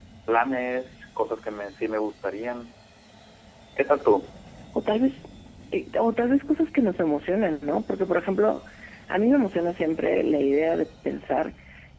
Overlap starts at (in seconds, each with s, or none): none